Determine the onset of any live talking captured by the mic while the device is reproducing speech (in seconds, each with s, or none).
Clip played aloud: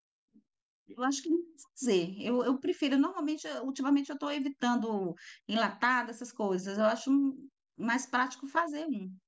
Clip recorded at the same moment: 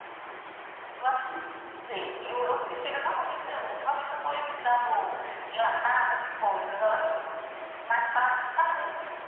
none